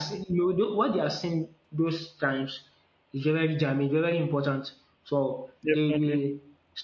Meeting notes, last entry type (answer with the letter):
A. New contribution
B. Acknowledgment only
B